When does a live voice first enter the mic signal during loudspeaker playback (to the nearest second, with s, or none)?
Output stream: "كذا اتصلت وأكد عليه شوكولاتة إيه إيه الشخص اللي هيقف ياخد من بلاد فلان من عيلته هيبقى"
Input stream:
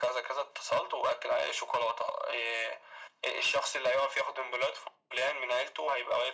none